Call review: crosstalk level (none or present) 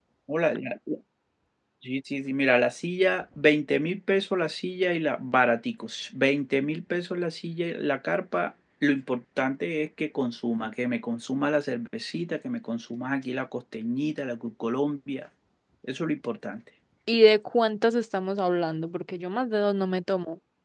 none